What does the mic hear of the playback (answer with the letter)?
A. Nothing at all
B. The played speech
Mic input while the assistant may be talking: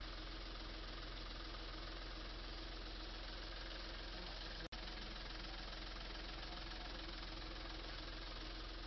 A